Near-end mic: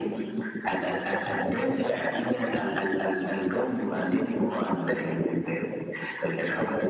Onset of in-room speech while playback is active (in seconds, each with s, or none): none